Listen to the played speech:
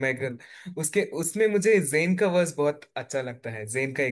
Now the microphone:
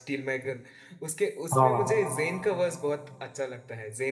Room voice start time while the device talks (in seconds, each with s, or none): 1.6 s